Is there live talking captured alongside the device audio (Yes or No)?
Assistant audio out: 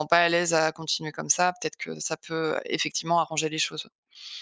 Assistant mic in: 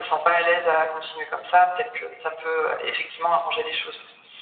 No